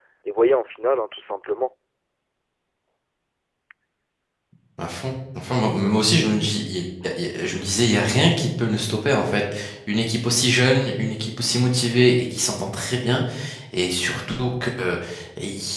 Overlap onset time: none

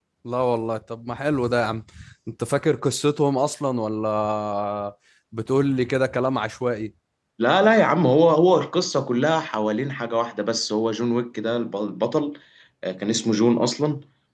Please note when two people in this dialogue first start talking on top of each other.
none

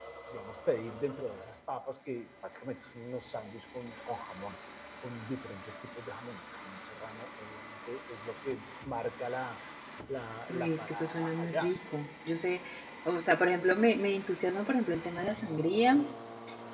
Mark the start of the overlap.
10.5 s

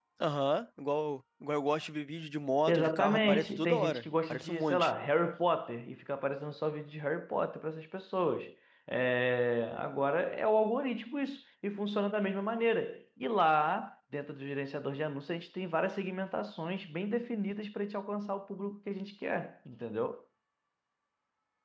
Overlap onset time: 2.7 s

